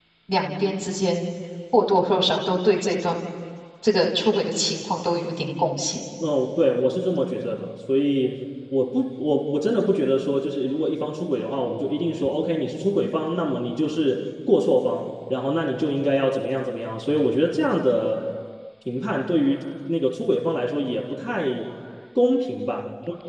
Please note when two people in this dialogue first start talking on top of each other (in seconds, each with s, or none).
none